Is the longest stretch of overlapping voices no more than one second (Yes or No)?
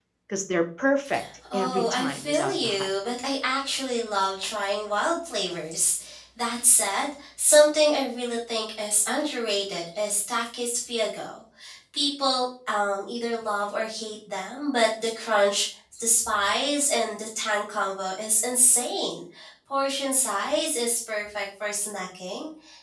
No